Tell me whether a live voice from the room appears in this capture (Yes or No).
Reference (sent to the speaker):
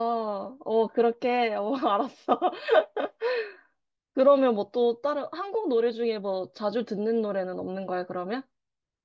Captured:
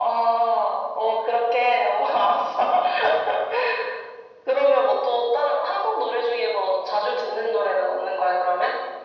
No